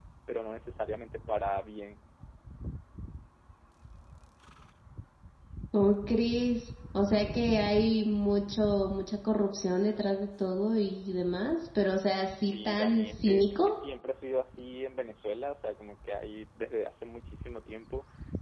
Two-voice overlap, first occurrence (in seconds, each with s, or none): 12.4 s